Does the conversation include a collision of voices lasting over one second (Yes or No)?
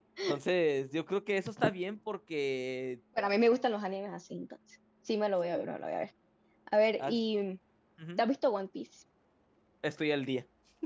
No